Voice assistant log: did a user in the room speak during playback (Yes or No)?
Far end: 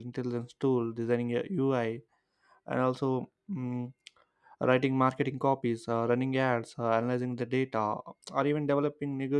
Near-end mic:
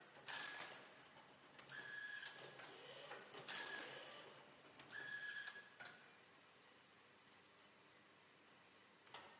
No